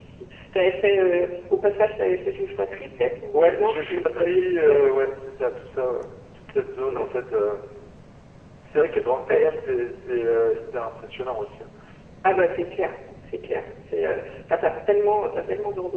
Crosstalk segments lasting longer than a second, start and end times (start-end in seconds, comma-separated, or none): 3.3-4.8